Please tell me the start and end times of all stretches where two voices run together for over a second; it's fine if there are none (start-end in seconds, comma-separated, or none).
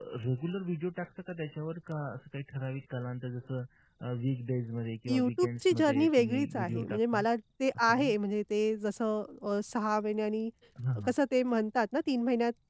5.1-7.2